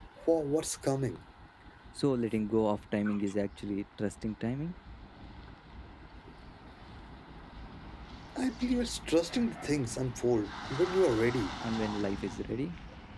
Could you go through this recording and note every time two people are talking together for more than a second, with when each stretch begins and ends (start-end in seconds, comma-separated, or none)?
none